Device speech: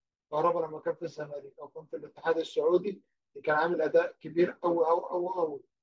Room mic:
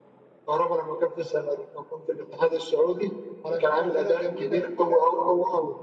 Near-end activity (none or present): present